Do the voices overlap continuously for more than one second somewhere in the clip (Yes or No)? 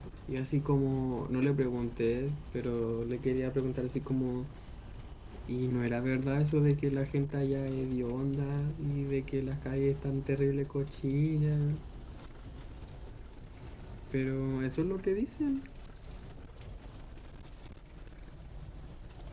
No